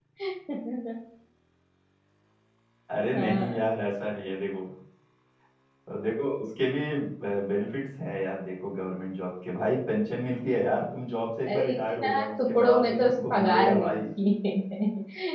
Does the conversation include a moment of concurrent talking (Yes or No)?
Yes